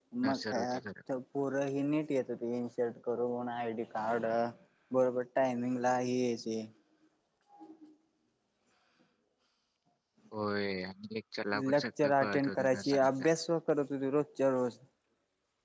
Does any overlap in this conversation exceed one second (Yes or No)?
Yes